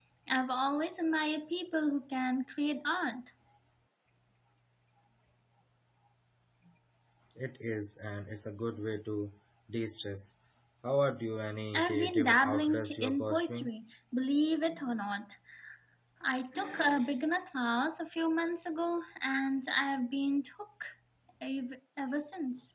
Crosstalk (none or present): present